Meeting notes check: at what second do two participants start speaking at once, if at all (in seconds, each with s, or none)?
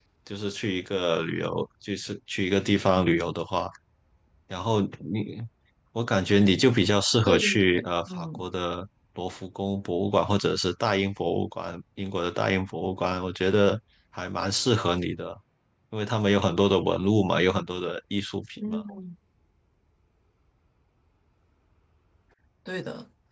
7.2 s